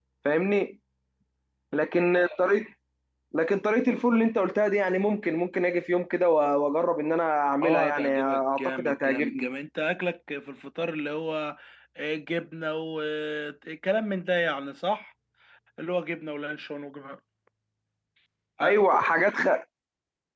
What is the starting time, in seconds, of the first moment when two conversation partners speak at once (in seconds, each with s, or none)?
7.6 s